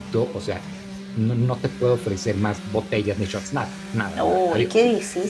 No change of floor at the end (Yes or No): No